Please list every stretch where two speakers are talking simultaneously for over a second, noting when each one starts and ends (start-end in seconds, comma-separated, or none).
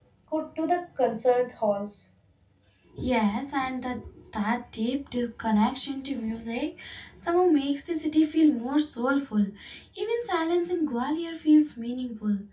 none